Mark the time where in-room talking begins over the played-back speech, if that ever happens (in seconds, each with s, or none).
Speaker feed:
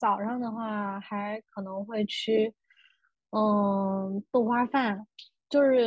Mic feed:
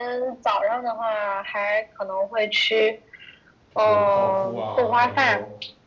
3.7 s